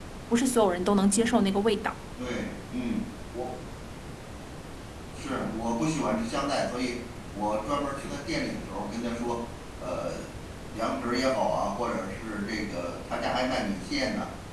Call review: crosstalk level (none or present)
none